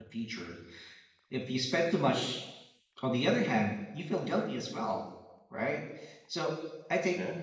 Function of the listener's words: listening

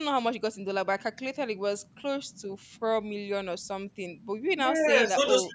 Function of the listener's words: taking over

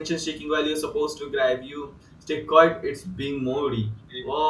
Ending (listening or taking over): listening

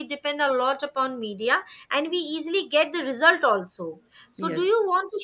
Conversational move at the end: listening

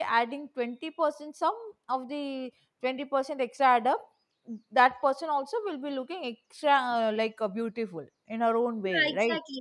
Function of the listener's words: taking over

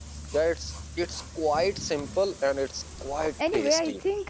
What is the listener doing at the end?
taking over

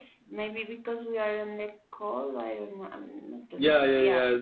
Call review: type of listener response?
taking over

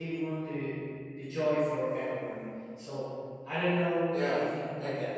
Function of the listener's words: taking over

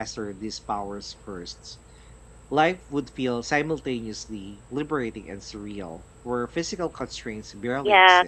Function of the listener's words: taking over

